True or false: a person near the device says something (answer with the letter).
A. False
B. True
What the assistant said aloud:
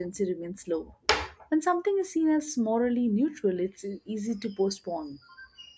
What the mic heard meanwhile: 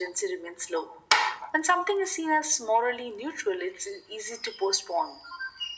A